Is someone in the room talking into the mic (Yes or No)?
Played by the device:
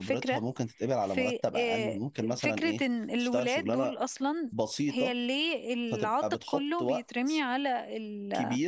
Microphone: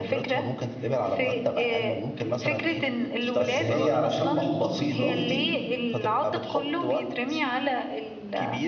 Yes